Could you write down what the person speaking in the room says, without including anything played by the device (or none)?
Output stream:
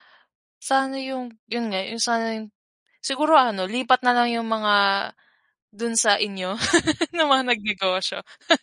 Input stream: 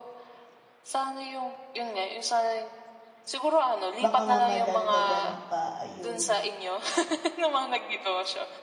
baka nga madagdagan pa, ayun.